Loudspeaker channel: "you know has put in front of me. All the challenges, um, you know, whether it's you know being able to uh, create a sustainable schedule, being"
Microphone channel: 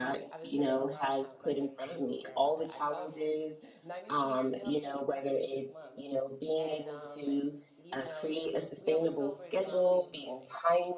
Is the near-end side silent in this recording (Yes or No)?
No